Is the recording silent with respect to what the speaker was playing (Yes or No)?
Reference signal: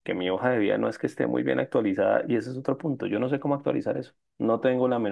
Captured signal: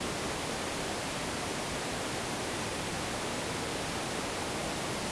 Yes